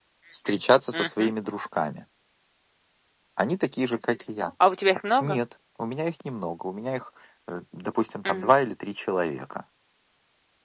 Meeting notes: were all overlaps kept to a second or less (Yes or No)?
Yes